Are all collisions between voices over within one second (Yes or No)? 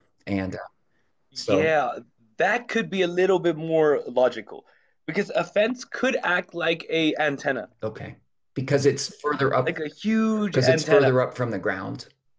Yes